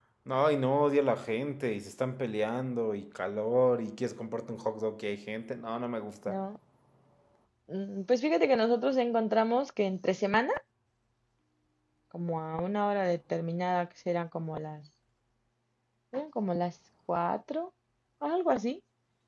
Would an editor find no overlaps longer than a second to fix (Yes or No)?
Yes